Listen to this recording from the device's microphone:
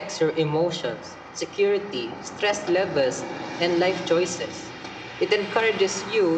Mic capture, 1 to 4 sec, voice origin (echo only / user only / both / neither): echo only